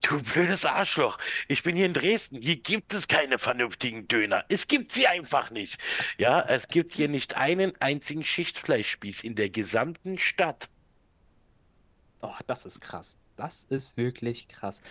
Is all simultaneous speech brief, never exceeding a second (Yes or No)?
Yes